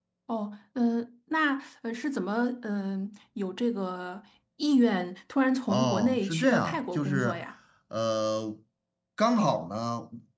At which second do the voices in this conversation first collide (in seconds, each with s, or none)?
5.7 s